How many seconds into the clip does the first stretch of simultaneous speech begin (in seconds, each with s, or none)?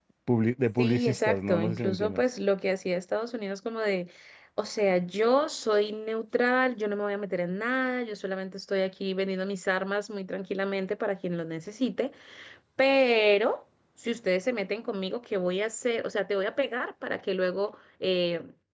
0.8 s